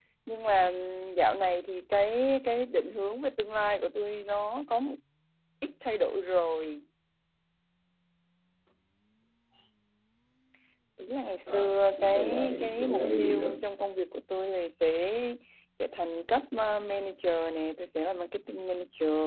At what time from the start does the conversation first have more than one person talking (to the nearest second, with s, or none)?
12 s